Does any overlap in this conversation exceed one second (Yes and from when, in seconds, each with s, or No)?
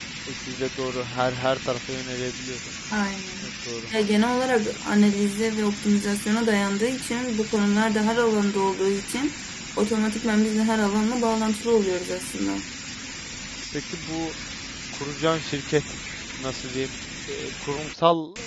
No